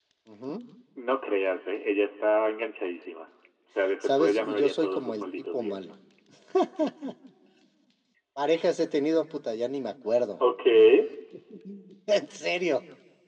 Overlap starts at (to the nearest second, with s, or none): 4 s